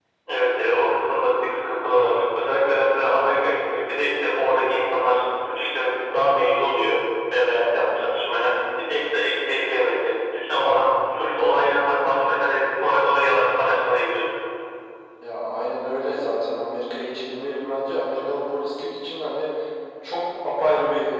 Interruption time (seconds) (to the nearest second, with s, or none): none